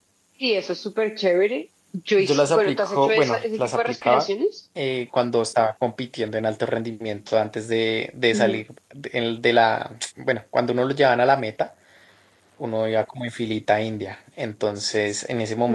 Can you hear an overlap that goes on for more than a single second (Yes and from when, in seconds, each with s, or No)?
Yes, from 2.2 s